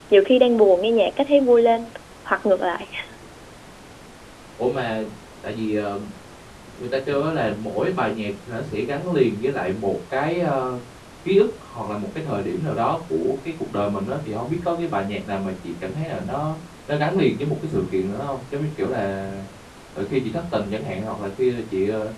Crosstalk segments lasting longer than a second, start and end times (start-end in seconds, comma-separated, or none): none